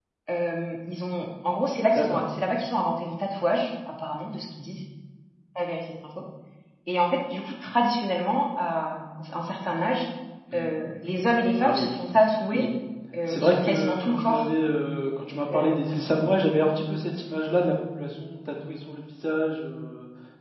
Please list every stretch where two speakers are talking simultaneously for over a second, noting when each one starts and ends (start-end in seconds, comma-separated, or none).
13.3-14.5